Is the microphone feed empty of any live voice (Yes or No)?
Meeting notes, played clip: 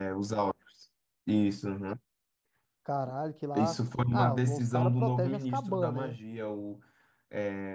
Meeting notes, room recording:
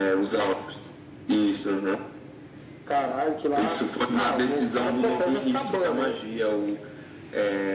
Yes